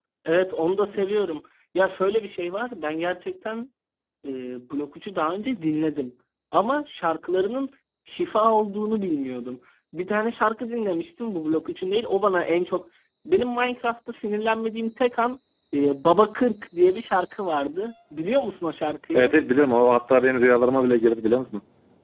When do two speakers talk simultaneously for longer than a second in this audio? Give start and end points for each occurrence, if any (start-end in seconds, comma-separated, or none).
none